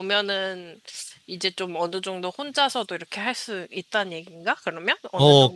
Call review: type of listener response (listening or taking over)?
taking over